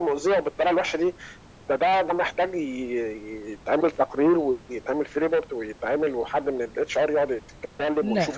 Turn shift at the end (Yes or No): Yes